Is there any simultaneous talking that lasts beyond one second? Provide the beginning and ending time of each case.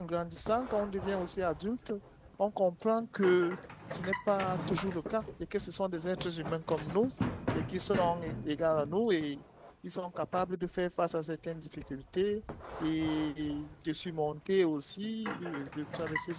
none

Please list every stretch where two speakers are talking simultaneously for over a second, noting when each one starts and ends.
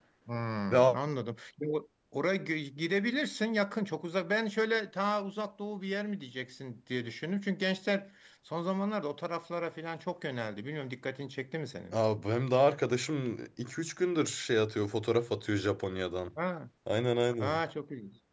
none

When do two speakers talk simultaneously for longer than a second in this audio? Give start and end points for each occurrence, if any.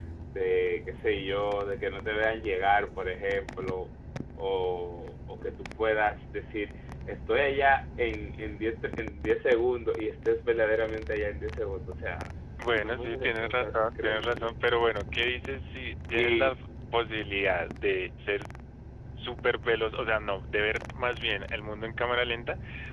12.6-14.5

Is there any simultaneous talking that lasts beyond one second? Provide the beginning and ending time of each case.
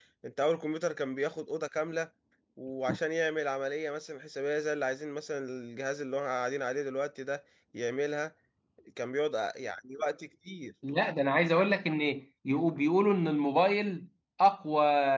none

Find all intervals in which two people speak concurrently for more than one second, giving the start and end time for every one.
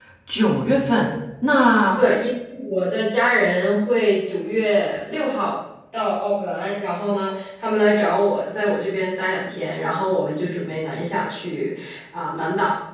none

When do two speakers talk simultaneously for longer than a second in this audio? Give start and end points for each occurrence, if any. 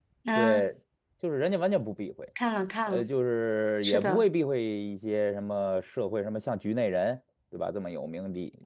none

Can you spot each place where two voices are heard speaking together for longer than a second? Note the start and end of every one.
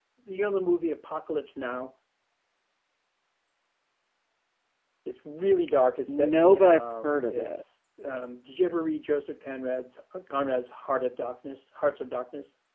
6.1-7.6

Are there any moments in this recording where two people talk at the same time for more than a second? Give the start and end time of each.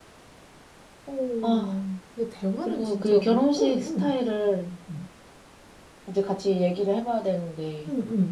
2.6-4.1

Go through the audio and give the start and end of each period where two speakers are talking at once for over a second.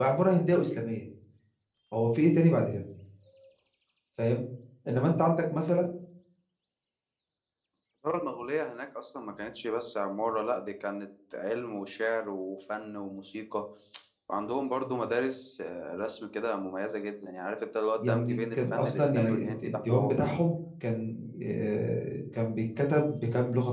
18.0-20.2

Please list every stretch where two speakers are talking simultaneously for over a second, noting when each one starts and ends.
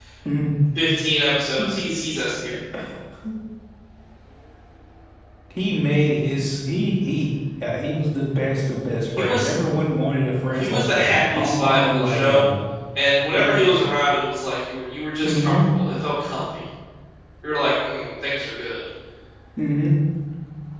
10.6-12.5

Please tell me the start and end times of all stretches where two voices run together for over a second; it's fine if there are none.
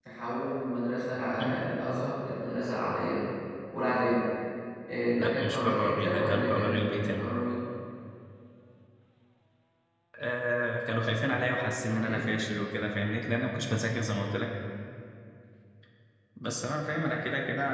5.2-7.2

